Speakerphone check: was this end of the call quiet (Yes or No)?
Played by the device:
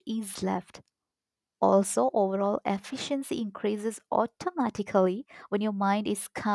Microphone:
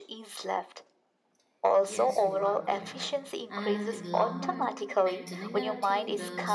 No